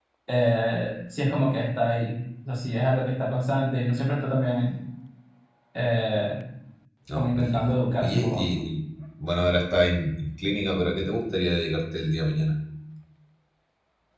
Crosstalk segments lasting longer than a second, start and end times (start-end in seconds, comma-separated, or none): 7.2-8.4